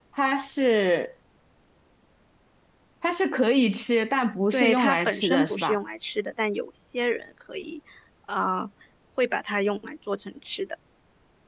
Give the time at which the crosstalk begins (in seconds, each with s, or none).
4.5 s